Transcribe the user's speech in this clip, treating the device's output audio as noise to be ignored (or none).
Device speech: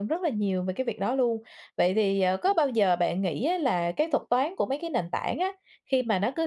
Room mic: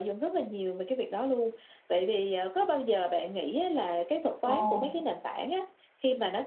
Ồ.